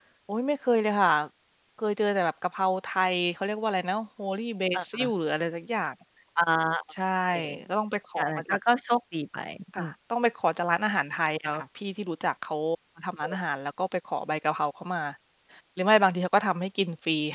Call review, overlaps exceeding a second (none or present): none